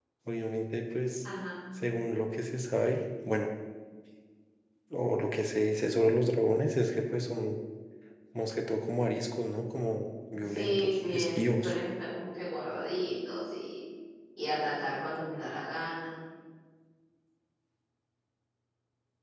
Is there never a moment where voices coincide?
No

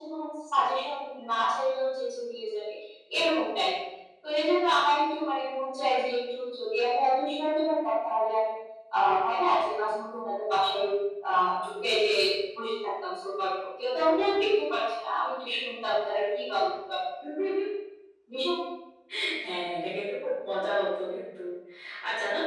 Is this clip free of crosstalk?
Yes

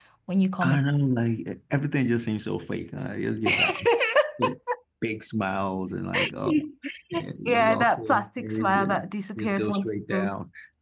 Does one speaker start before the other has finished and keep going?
Yes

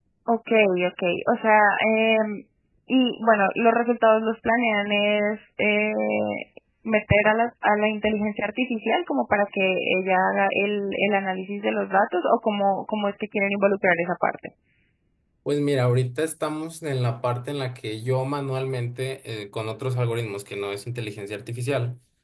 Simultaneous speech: No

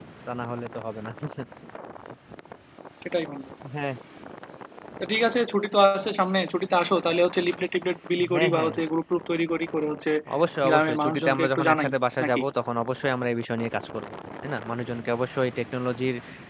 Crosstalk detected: Yes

